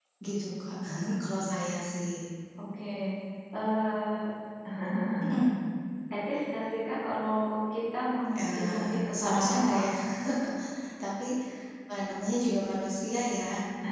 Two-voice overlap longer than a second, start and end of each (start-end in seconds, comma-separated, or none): 8.4-9.9